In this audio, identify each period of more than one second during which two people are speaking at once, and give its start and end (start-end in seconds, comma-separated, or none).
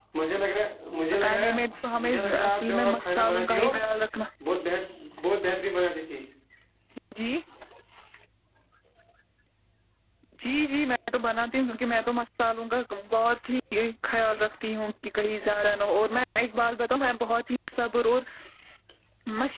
1.1-3.7